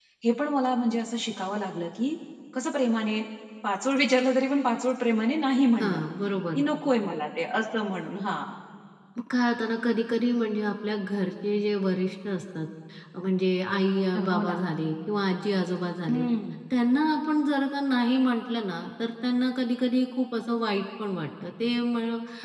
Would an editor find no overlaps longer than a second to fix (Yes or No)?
Yes